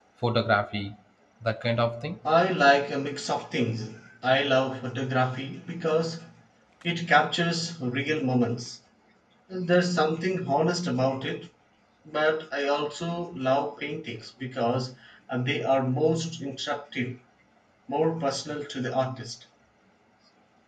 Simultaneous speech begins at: none

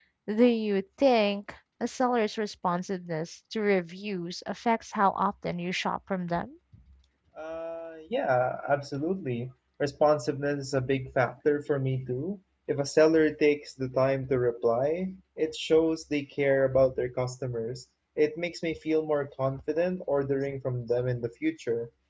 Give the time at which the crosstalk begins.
none

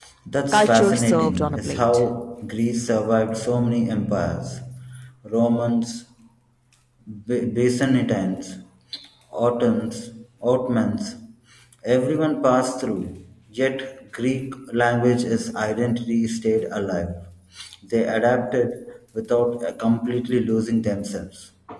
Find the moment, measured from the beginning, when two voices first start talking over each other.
0.5 s

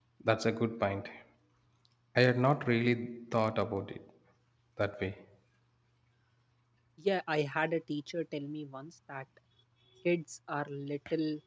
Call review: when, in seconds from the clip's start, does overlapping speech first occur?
none

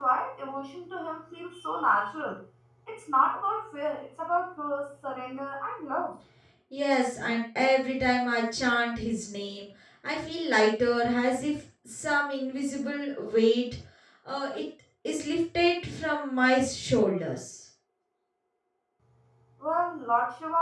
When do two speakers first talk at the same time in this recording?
none

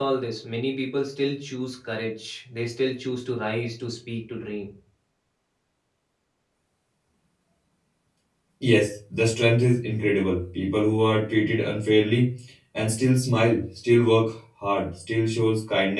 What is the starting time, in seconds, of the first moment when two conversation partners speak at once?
none

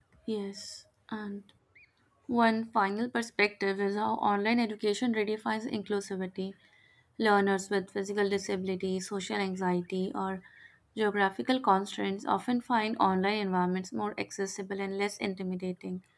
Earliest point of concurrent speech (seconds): none

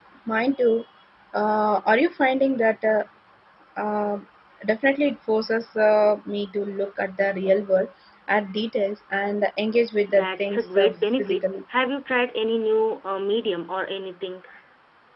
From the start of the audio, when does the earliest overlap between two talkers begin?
10.1 s

